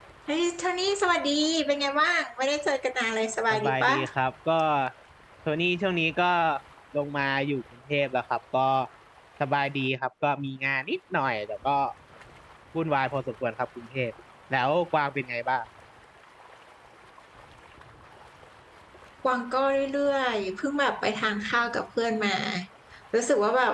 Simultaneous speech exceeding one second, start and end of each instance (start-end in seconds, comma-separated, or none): none